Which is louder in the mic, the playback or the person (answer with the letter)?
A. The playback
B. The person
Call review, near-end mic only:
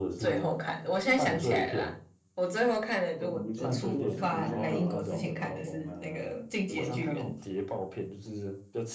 A